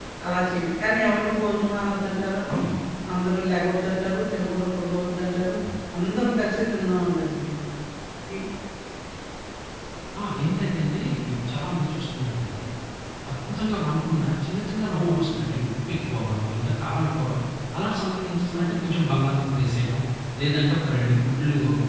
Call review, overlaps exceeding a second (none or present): none